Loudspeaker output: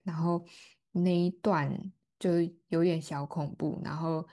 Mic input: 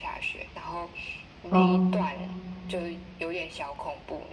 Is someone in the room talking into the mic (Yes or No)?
Yes